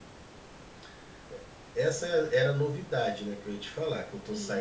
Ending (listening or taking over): taking over